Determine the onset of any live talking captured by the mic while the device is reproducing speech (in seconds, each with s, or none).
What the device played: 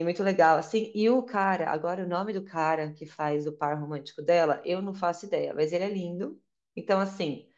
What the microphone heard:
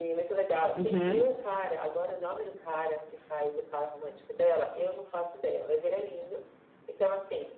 0.8 s